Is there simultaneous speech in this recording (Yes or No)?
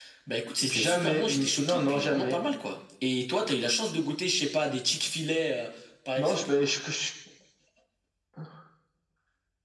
Yes